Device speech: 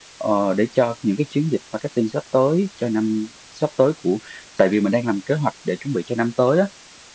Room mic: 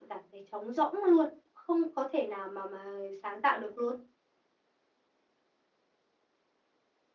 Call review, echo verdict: none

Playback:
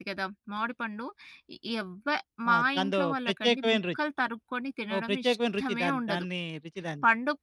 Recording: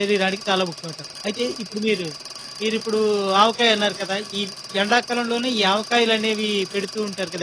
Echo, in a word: none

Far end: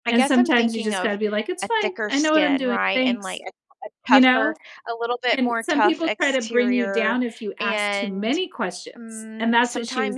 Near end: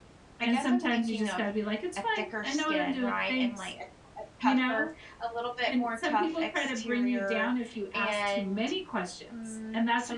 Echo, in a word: present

